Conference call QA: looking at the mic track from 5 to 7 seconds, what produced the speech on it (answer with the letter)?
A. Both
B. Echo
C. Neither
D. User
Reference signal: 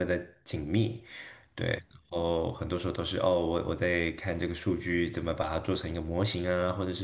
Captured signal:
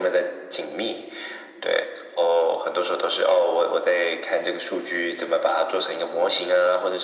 B